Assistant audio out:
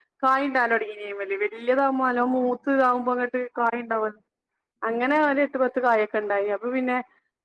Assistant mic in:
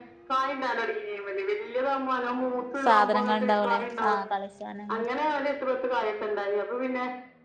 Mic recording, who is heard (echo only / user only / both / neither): both